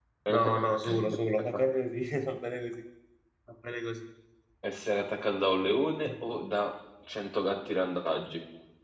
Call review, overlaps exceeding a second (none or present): none